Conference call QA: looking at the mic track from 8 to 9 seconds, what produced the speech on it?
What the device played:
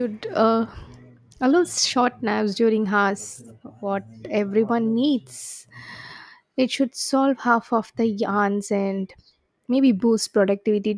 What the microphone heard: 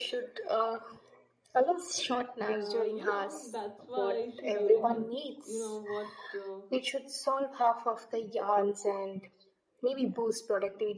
echo only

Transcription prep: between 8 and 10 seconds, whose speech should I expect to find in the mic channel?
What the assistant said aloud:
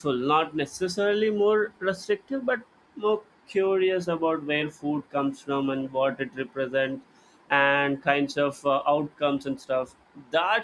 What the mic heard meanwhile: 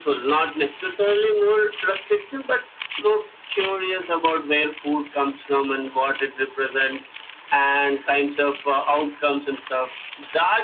echo only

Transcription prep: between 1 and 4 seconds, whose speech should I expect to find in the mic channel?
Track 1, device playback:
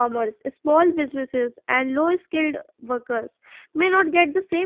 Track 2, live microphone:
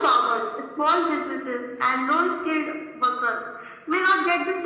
echo only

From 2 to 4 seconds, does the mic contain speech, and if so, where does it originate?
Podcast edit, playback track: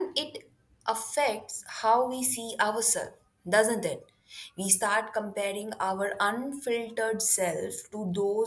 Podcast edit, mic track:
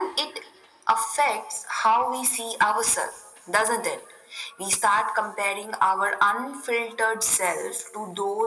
echo only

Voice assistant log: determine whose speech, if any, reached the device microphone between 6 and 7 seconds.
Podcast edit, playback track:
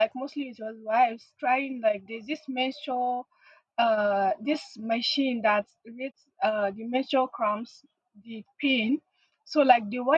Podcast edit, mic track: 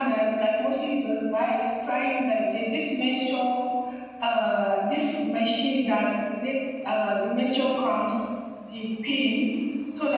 echo only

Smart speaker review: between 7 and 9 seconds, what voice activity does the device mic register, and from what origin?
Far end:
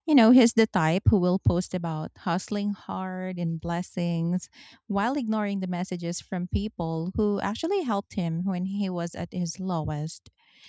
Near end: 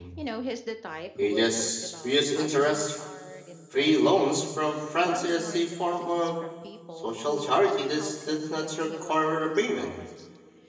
both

